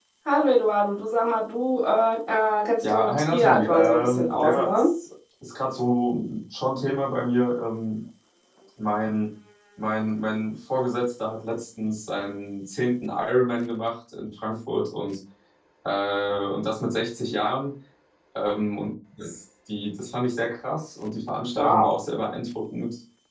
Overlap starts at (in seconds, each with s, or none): 2.8 s